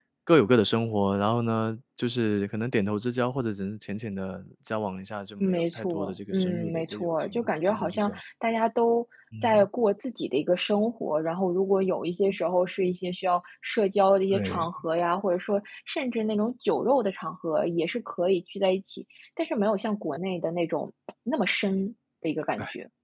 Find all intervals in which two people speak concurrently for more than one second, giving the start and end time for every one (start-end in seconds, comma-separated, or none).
5.4-8.2